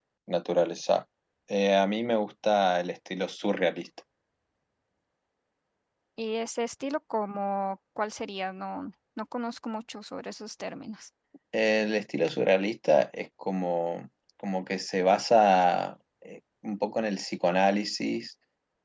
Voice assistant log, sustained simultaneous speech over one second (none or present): none